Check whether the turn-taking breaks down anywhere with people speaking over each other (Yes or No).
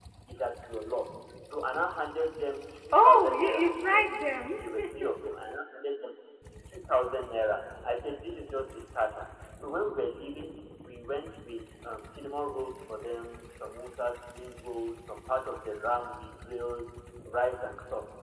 Yes